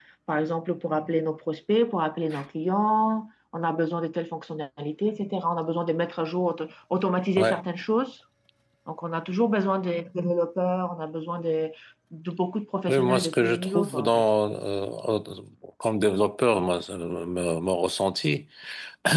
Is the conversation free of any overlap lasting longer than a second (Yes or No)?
No